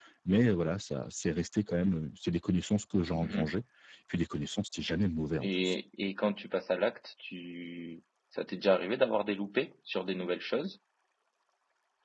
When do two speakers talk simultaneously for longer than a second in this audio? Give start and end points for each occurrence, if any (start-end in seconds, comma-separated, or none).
none